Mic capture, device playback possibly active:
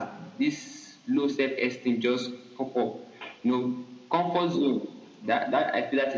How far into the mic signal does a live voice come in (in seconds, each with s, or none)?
none